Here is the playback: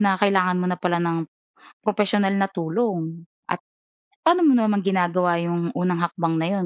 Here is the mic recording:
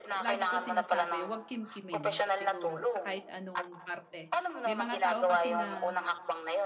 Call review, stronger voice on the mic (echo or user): echo